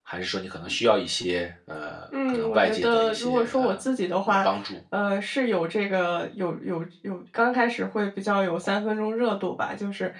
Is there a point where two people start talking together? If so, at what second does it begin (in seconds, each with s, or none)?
2.1 s